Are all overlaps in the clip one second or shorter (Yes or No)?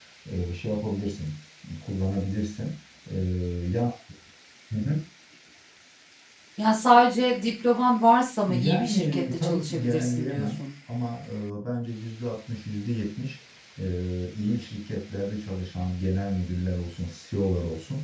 No